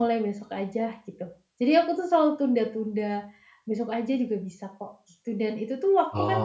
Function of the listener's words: listening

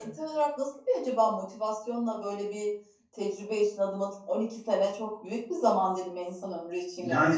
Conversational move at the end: taking over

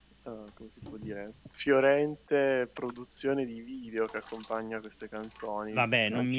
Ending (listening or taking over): taking over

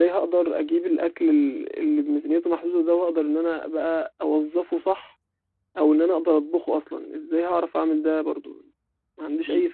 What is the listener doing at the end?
taking over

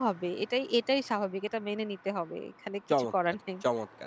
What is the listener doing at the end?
taking over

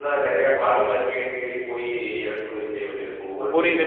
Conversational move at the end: taking over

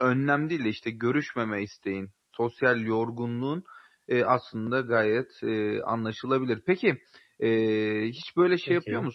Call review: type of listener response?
listening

